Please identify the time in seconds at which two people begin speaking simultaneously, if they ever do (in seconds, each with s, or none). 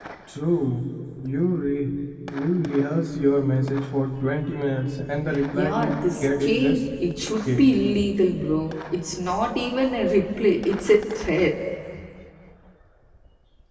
5.3 s